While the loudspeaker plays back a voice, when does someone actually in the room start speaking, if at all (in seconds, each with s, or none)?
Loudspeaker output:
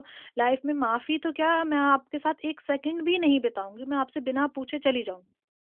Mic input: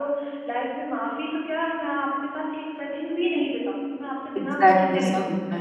4.4 s